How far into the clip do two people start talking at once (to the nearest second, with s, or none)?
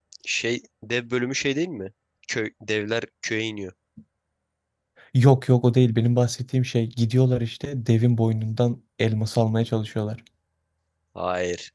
none